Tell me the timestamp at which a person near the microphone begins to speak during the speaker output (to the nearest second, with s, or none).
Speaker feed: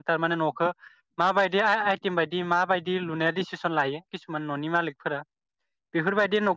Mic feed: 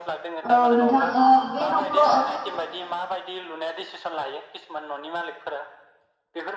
1 s